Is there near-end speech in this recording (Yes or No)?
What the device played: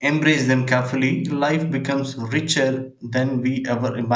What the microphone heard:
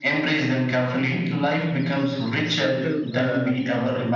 Yes